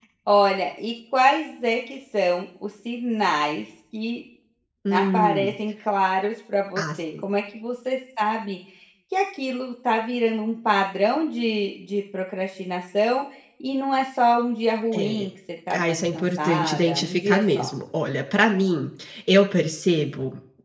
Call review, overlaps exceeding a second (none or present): present